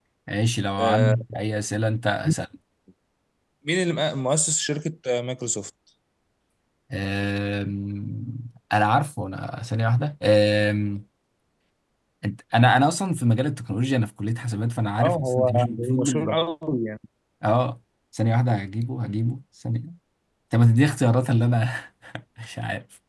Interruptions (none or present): present